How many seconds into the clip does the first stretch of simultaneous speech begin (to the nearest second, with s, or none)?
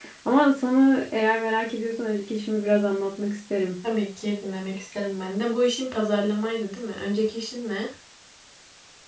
none